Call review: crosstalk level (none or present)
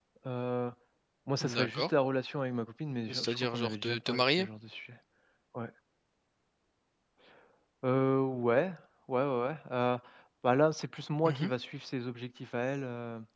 present